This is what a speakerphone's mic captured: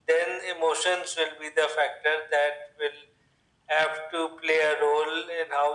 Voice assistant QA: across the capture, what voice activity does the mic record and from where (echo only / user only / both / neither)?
echo only